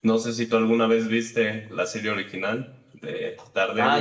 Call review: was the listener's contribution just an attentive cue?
No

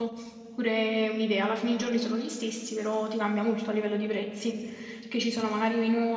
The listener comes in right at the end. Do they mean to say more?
No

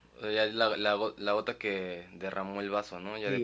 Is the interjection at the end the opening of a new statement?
Yes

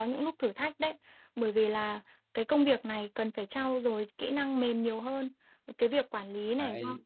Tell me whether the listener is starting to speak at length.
No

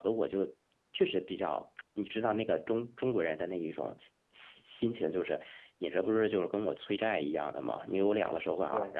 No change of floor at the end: Yes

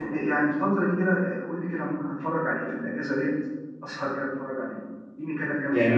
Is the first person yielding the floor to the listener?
Yes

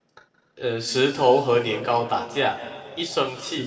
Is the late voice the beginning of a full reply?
No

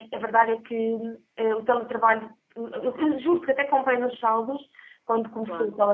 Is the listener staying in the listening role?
Yes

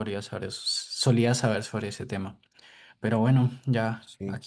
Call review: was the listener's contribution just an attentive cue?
Yes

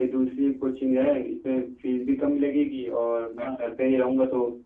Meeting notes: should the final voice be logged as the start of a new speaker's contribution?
No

